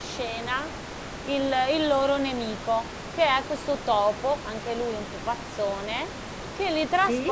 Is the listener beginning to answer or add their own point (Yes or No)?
No